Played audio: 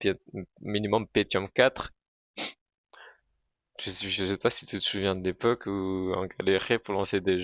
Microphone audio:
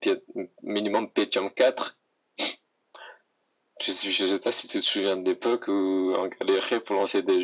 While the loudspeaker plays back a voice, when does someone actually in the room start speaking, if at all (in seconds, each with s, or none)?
none